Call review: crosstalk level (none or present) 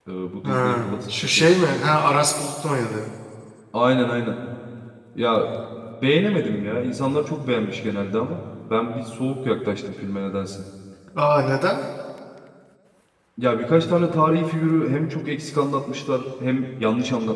present